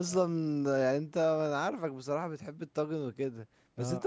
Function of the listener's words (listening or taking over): listening